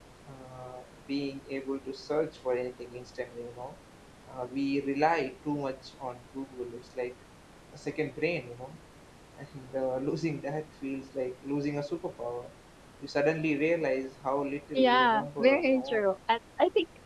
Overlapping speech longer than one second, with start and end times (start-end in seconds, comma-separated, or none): 14.8-16.0